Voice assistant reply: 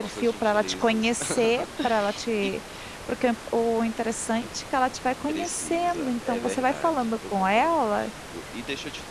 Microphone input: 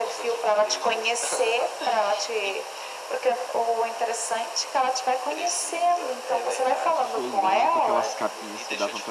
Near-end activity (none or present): present